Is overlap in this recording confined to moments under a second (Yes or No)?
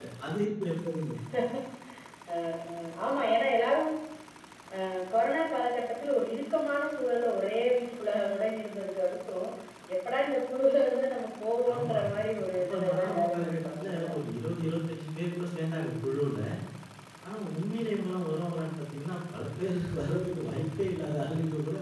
No